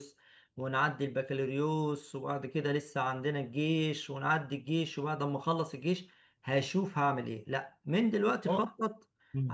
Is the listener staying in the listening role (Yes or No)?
Yes